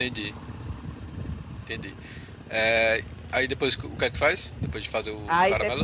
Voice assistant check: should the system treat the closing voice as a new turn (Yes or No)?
Yes